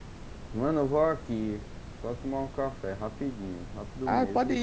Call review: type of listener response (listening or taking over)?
taking over